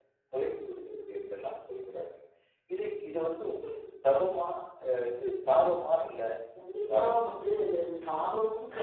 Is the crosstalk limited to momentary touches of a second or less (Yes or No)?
Yes